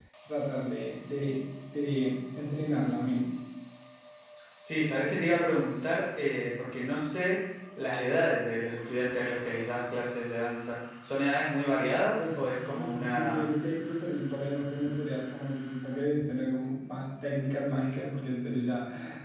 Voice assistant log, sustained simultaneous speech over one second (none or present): present